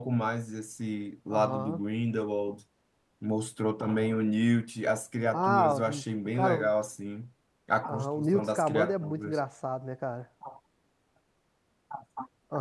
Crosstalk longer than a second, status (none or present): present